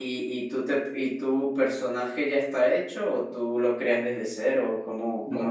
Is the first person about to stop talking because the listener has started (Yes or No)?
Yes